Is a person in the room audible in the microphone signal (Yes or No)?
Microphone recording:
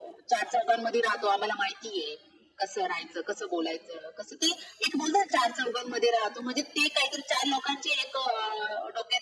No